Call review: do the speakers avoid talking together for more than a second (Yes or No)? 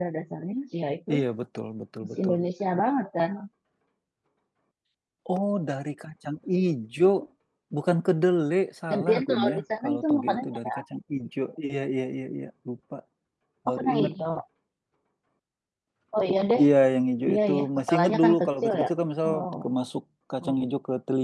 No